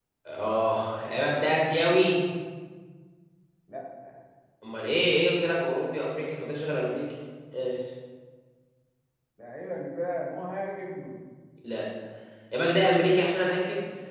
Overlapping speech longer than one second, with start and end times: none

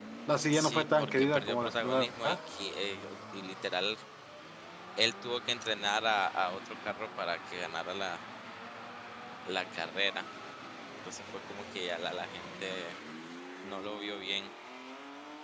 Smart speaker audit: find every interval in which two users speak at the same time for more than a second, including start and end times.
0.5-2.1

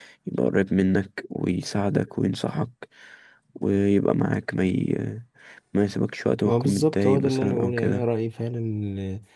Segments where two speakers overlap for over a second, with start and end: 6.4-8.1

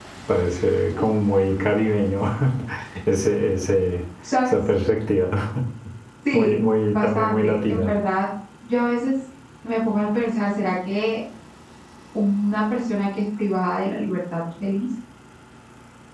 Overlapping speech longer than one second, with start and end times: 6.3-7.9

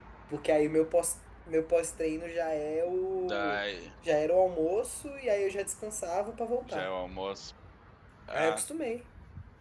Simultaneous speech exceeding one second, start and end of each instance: none

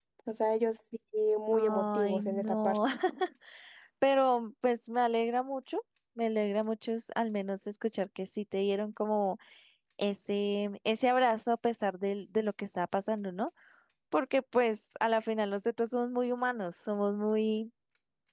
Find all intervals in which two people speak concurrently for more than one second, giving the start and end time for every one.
1.5-2.8

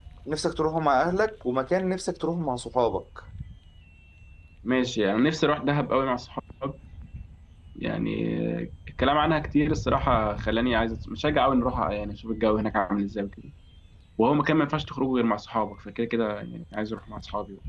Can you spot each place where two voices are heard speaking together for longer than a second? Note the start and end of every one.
none

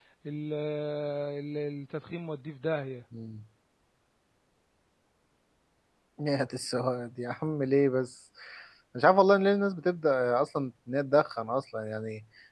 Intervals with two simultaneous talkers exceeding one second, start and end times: none

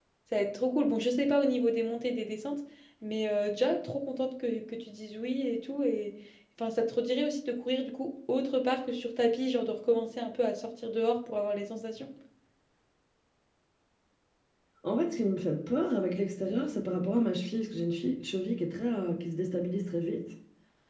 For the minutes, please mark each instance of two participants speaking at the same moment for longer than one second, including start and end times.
none

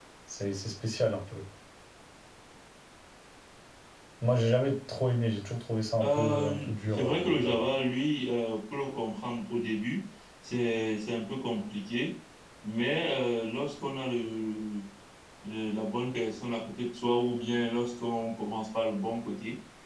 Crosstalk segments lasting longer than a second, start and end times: 6.0-7.7

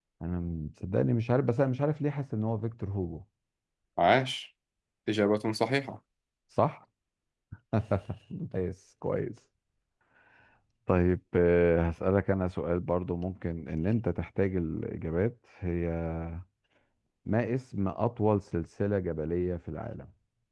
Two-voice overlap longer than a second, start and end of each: none

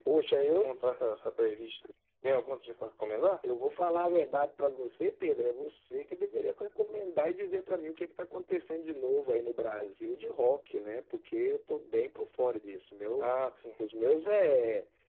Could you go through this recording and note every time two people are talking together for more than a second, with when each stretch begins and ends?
none

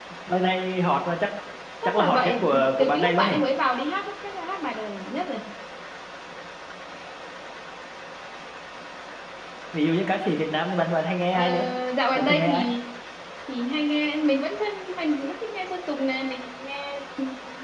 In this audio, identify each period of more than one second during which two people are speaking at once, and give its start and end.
1.9-3.4

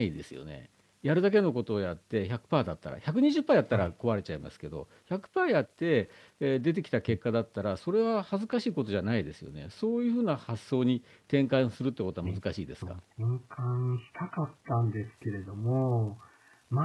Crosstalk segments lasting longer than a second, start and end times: none

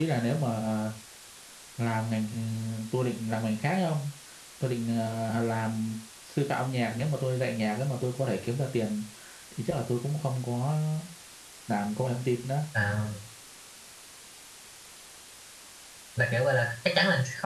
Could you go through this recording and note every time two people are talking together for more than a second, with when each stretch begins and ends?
none

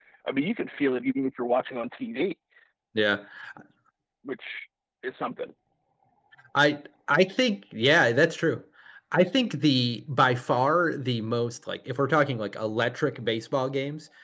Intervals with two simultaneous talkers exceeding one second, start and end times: none

